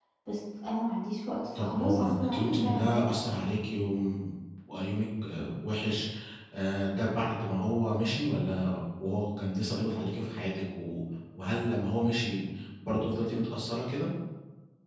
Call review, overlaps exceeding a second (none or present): present